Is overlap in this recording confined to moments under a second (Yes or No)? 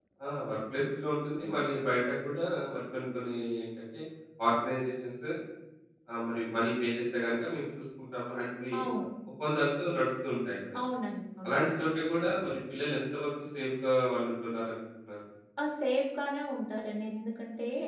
Yes